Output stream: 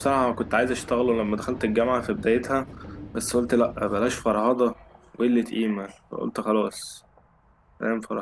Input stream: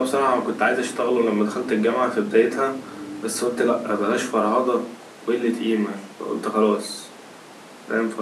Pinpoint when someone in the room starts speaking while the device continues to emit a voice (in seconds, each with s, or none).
none